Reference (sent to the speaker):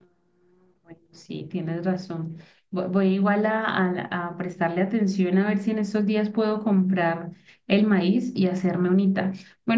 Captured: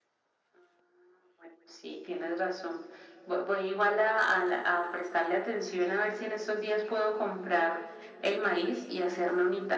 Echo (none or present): present